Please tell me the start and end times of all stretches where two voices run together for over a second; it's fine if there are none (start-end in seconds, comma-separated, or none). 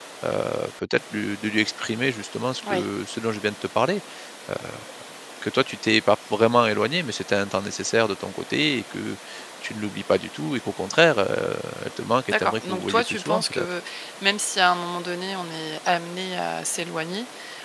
12.3-13.7